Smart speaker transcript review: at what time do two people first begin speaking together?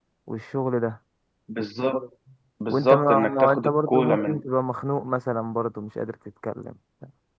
3 s

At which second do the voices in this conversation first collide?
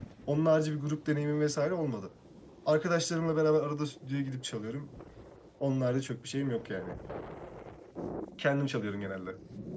none

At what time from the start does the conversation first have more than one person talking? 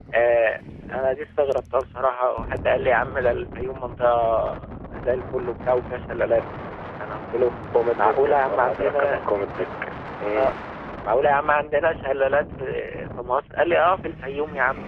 8 s

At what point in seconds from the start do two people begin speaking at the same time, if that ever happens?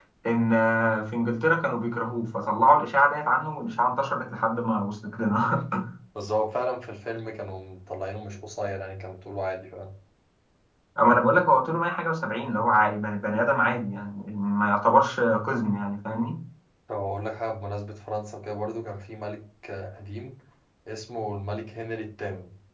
none

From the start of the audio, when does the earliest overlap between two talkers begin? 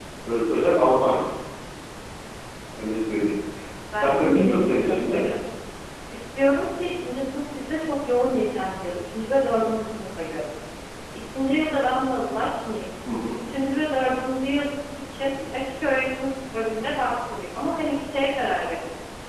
4 s

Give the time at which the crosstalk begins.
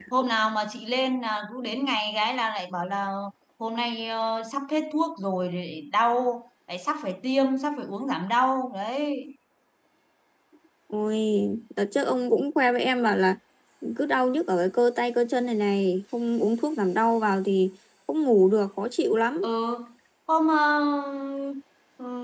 none

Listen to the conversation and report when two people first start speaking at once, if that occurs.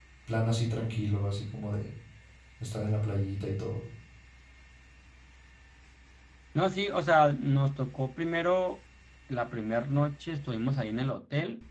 none

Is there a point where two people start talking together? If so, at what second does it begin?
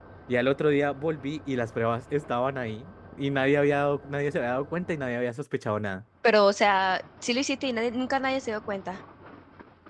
none

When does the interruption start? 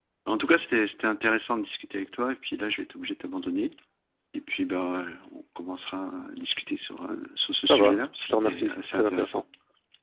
8 s

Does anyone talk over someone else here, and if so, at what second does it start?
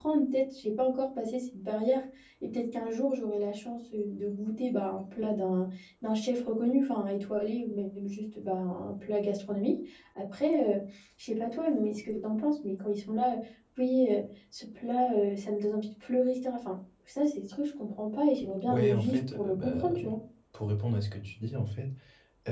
19 s

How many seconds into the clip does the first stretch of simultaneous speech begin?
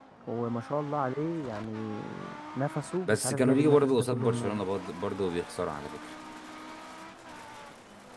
3 s

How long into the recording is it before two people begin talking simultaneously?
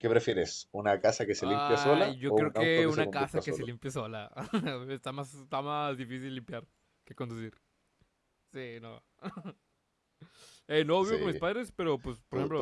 1 s

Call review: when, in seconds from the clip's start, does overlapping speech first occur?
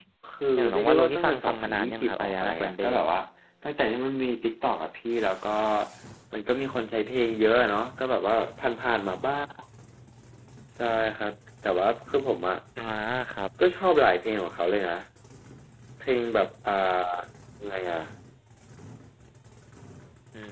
1 s

